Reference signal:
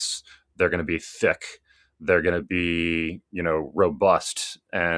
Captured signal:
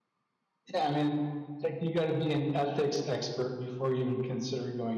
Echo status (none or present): none